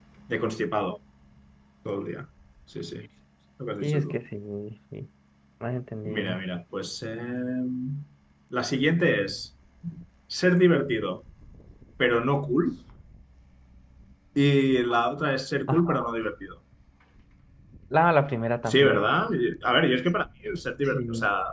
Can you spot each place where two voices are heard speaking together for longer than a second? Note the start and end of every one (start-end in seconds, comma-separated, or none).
none